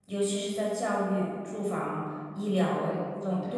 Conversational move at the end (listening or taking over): listening